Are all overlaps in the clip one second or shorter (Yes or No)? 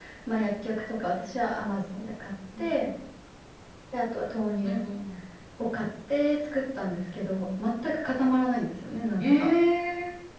Yes